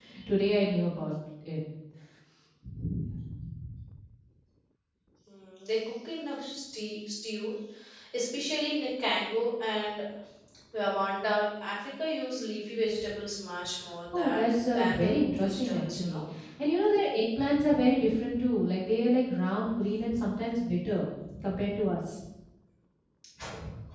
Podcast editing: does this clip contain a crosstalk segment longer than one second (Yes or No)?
Yes